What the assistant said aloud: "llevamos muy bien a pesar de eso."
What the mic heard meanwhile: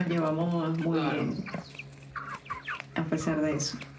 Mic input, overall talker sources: both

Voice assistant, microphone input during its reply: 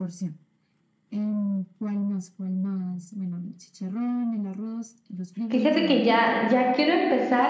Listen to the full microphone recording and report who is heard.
both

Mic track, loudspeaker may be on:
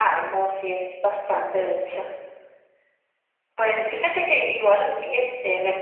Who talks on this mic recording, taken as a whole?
echo only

